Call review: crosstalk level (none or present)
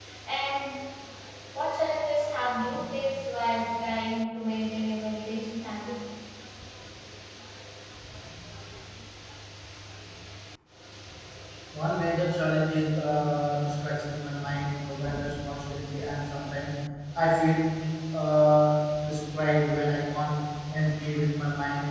none